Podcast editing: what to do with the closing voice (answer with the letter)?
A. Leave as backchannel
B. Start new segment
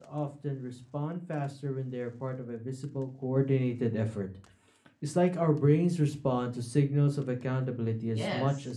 B